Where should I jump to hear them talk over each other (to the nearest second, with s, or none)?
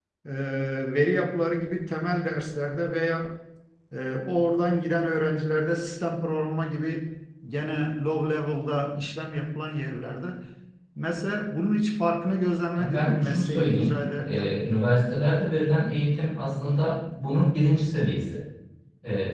13 s